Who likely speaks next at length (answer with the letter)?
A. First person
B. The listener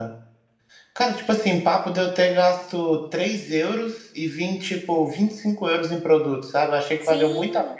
B